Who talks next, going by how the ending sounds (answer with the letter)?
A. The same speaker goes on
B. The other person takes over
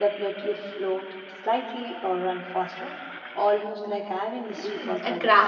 B